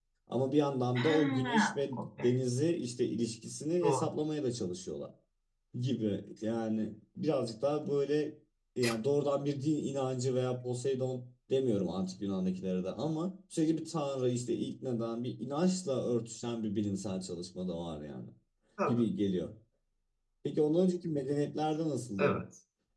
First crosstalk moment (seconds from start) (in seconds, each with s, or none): 0.9 s